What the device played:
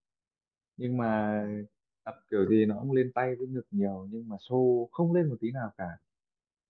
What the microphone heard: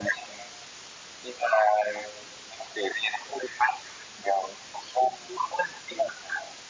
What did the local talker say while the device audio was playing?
none

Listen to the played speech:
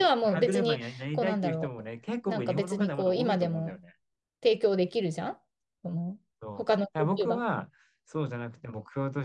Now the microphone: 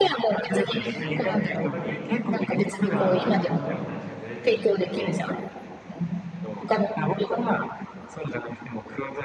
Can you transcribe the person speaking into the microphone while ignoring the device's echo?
いや、そうだよ。やっぱり、僕はまあ旅行との話がずれちゃうんだけど、

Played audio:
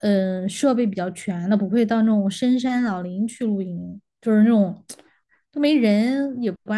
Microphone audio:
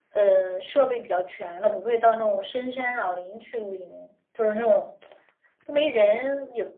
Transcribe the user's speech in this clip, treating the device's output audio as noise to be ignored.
none

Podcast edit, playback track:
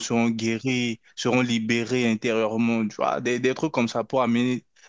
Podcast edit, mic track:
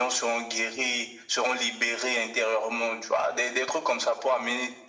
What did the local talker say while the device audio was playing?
none

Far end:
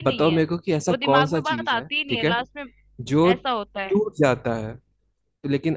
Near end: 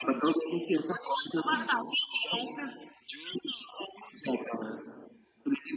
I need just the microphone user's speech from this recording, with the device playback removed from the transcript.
none

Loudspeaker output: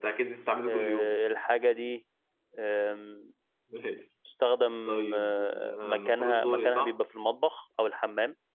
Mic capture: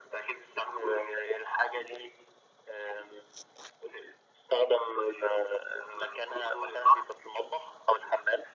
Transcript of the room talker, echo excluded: none

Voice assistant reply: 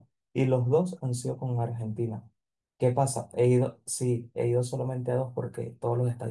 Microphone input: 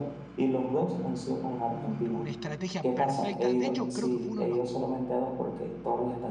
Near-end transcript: un- una estrategia perfecta. De hecho, creo que fue uno de los,

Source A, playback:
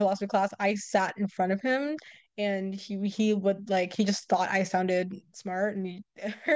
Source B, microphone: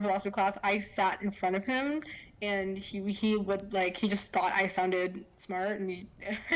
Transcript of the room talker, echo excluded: none

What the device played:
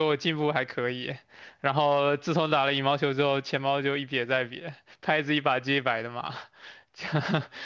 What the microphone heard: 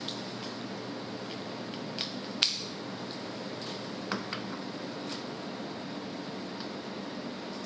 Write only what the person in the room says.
none

